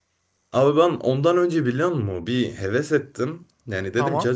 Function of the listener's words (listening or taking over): listening